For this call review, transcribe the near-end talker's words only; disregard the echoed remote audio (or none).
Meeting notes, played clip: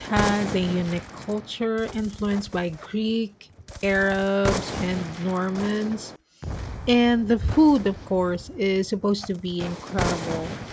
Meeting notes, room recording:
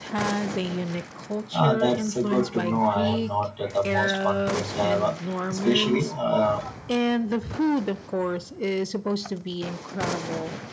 Ah, that's uh, good to know. I am not uh, the most confident driver, especially uh,